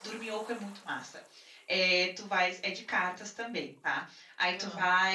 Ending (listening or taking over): listening